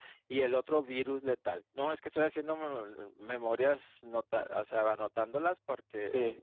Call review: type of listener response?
taking over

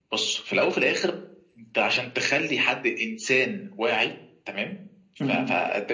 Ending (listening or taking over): listening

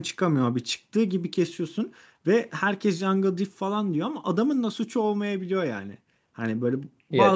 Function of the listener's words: listening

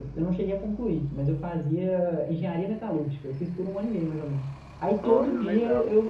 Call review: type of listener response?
listening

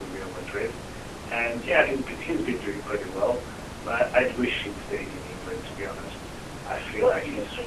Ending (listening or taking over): taking over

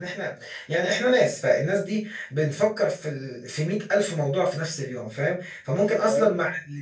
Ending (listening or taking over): listening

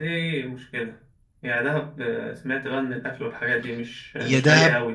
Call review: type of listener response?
taking over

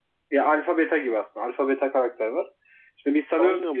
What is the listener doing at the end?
listening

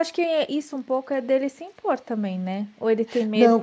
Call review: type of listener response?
taking over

